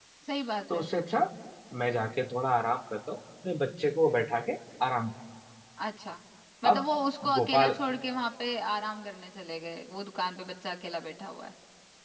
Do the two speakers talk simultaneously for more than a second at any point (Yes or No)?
No